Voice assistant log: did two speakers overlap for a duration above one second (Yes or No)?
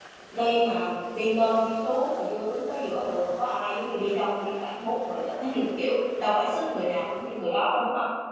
No